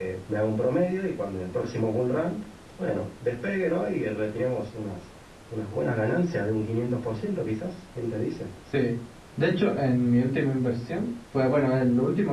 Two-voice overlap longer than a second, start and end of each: none

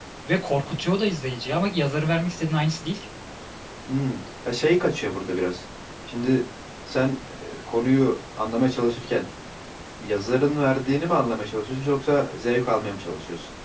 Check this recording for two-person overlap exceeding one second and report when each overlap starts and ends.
none

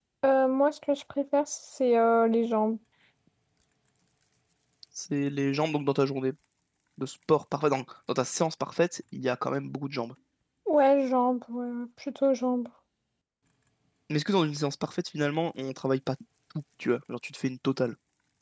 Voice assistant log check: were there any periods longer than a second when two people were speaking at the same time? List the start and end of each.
none

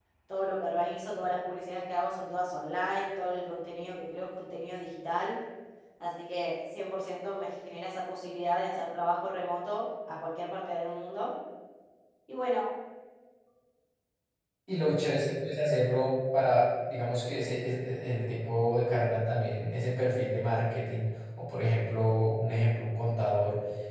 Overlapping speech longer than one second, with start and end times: none

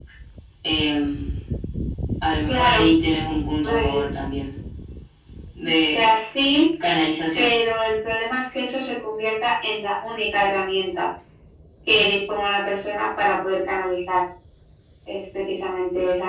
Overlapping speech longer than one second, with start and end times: none

